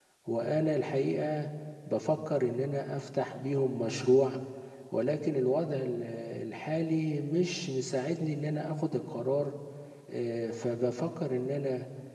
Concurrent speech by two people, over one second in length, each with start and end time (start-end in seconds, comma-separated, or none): none